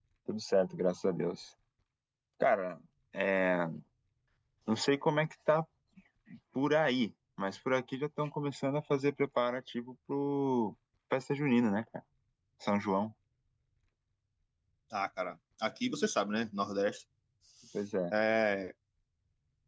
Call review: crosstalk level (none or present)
none